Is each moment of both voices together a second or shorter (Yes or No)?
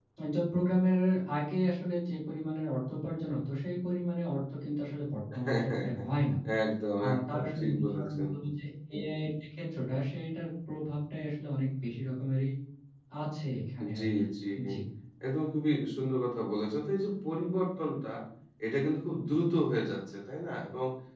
No